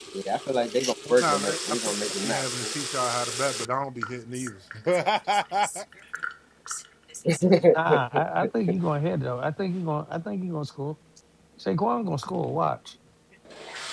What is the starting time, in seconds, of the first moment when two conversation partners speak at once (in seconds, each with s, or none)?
1.1 s